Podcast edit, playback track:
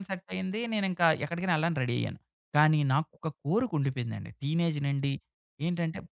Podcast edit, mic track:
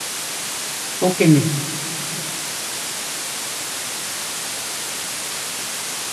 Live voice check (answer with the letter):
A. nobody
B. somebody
B